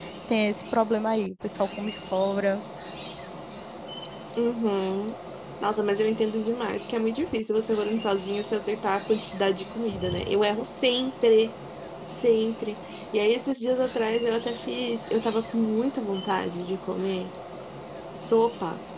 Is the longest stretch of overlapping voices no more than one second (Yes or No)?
Yes